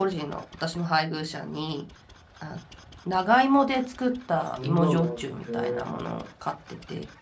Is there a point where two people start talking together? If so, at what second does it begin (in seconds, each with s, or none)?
4.3 s